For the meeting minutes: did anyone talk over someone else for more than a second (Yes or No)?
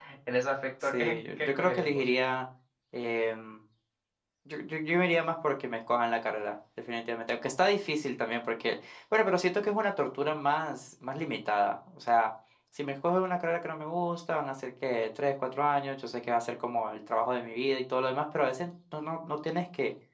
Yes